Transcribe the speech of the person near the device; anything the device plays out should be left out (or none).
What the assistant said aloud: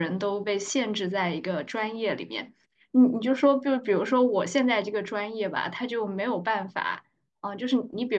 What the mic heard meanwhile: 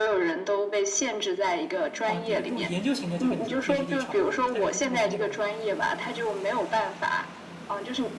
啊，对，如果是研究型的，就跟你说的 PhD 差不多的，但是如如果是那种，对，